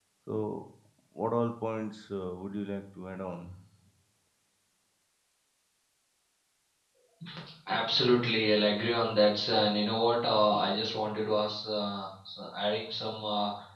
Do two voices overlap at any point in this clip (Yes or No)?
No